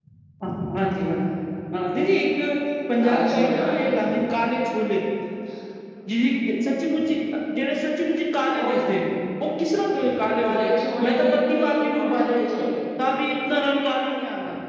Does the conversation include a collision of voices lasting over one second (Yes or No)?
Yes